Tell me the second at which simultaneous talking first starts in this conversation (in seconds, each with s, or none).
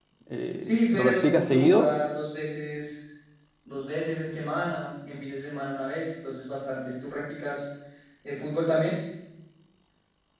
0.6 s